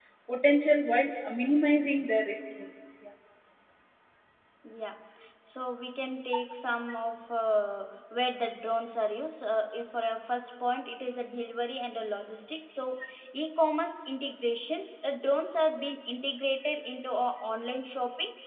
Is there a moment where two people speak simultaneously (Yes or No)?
No